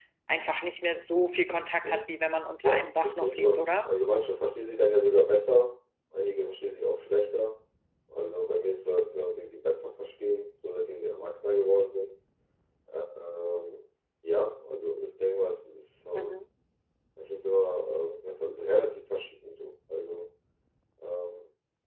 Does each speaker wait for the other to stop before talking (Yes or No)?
No